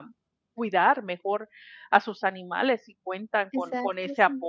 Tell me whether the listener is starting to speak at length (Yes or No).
No